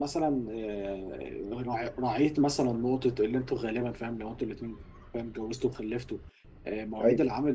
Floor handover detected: No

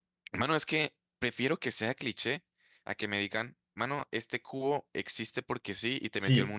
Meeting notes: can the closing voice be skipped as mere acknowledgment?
No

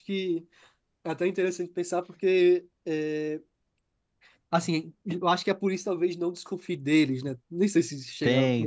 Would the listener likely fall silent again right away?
No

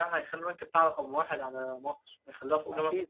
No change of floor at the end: No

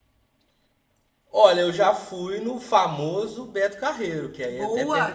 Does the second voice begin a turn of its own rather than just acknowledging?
Yes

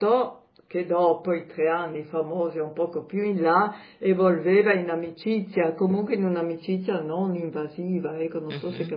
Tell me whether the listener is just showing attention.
No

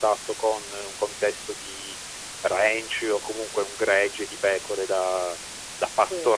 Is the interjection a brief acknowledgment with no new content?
Yes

